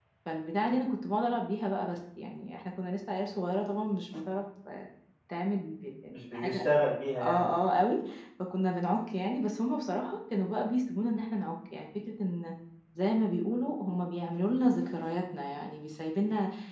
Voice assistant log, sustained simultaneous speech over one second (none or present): none